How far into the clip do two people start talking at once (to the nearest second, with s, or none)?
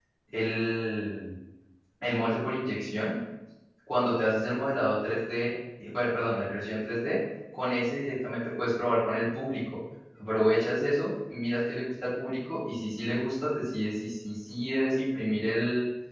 none